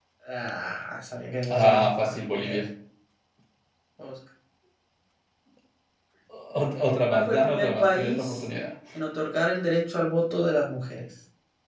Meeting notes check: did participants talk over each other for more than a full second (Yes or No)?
Yes